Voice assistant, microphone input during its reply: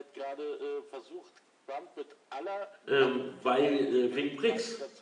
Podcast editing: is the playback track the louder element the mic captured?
No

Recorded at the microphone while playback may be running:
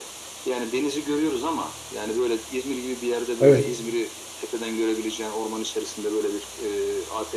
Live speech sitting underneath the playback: No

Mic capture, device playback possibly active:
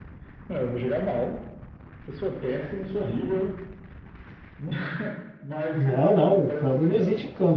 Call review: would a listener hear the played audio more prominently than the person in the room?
No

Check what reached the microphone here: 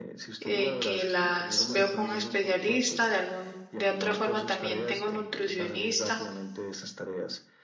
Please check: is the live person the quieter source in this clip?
No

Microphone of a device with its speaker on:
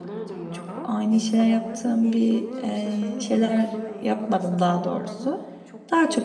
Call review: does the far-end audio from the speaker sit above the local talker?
No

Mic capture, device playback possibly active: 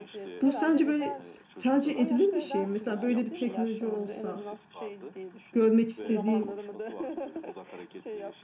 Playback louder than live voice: No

